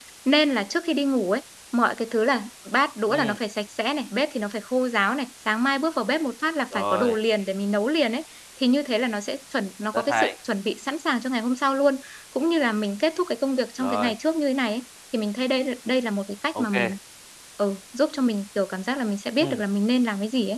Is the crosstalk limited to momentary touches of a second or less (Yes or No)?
Yes